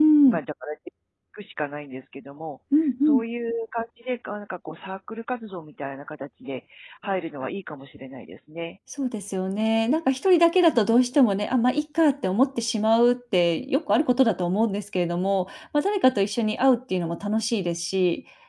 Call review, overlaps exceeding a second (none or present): none